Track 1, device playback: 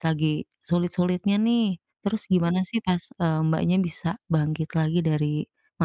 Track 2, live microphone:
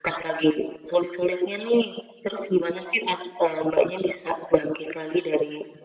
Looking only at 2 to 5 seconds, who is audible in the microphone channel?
echo only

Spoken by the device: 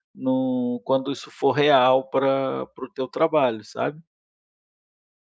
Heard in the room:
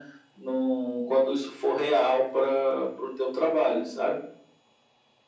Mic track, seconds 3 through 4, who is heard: both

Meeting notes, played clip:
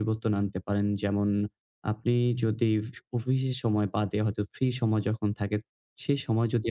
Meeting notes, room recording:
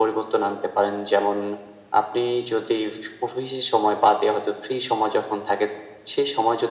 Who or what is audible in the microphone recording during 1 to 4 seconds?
echo only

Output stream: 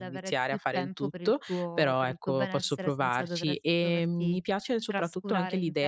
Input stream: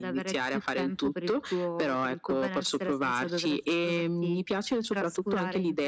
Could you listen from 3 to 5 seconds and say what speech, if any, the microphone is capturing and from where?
echo only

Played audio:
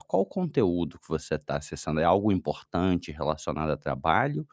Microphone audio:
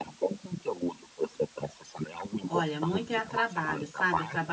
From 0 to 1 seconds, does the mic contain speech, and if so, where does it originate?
echo only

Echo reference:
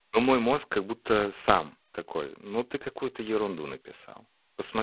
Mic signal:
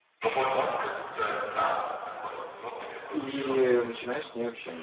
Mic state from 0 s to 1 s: echo only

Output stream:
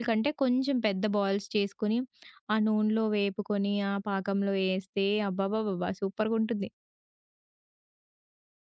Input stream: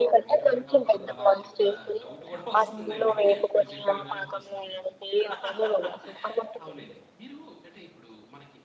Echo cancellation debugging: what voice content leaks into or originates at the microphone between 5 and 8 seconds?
both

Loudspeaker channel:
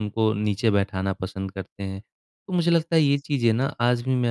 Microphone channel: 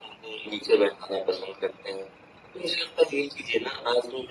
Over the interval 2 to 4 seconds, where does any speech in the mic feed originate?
echo only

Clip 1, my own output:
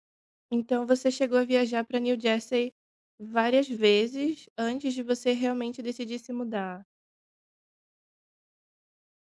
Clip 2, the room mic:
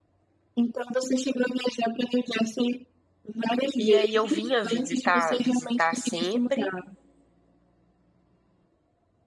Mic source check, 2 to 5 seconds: both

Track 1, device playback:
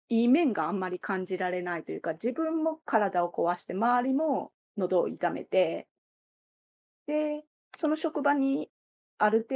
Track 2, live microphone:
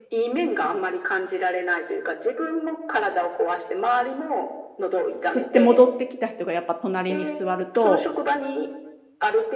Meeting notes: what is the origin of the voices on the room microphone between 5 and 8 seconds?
both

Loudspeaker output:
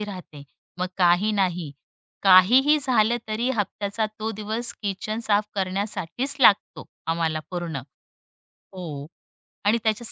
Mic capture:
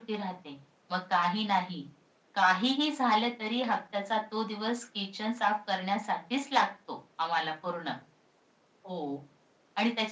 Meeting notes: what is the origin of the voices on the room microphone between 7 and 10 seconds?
echo only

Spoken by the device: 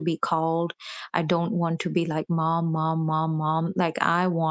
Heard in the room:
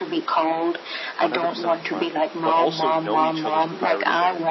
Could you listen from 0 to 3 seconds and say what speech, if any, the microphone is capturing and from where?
both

